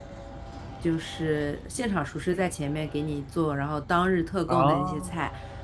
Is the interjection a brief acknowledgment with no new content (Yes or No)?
Yes